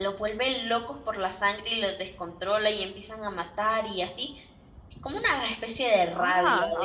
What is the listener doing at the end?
taking over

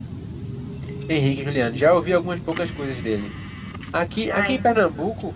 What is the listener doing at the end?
listening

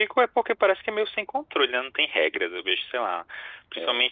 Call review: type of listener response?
listening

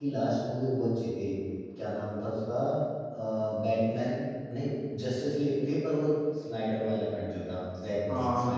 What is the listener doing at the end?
taking over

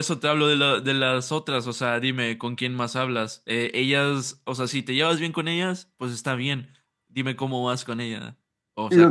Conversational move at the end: taking over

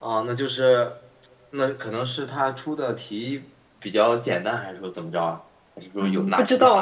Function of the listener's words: taking over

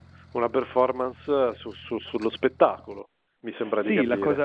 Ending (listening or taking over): taking over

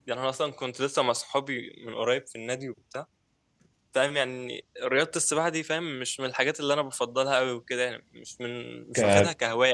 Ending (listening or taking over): listening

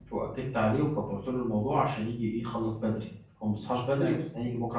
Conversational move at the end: listening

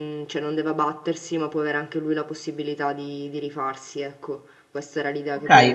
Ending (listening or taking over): taking over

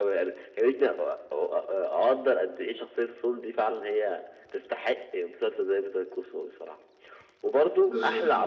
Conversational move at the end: listening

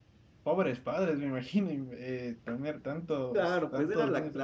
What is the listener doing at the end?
taking over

